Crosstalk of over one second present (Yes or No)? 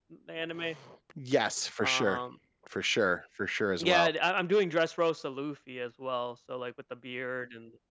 No